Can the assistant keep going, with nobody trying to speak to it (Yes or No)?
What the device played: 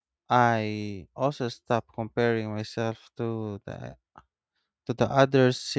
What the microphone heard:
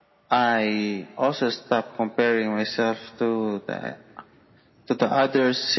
Yes